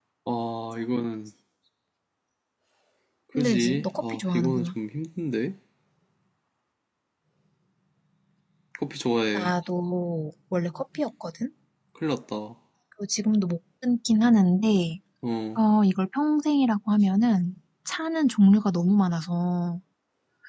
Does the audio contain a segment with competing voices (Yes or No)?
Yes